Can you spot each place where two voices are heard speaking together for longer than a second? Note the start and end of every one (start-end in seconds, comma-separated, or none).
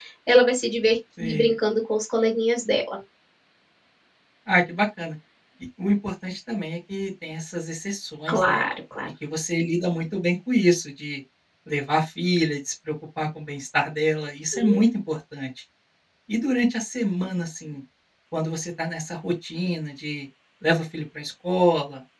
none